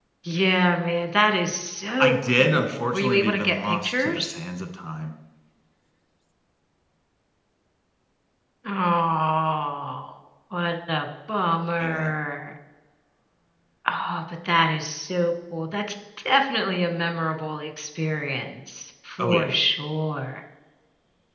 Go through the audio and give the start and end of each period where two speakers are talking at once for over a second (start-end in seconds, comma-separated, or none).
2.0-4.3